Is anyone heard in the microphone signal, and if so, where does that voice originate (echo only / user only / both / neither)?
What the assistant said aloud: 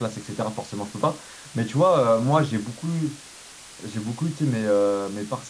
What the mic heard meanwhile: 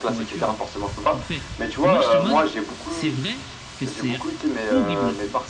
both